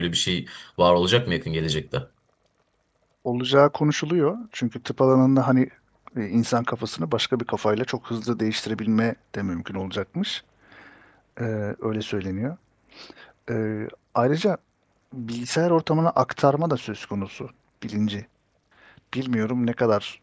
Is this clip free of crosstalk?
Yes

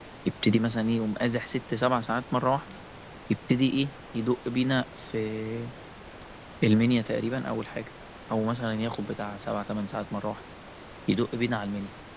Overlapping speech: No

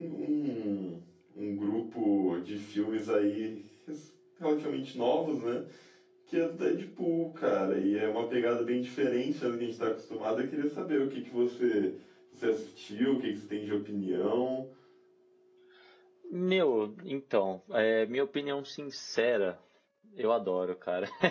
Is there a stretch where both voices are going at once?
No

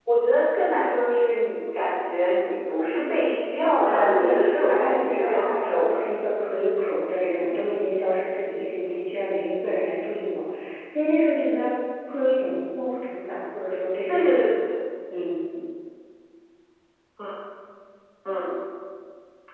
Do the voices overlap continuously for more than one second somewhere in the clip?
Yes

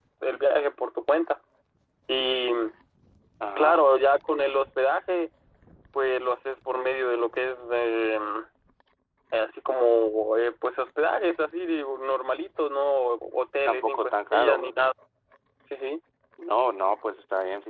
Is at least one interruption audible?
Yes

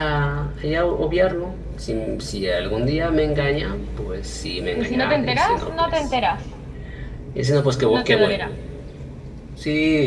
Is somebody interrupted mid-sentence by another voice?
Yes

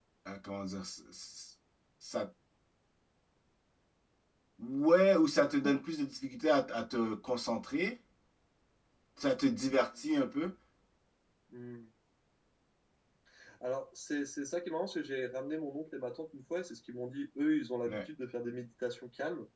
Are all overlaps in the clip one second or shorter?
Yes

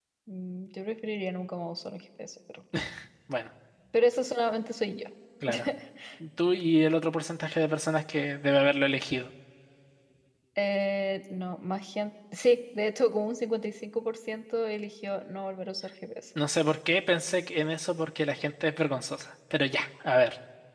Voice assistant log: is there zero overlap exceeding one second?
Yes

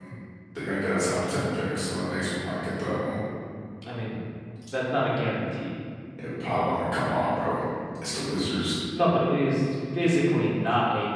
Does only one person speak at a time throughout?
Yes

